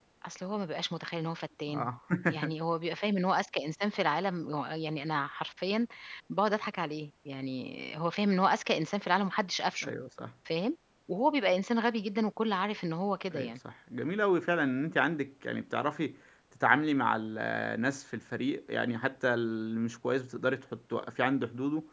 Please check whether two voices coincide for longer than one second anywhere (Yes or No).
No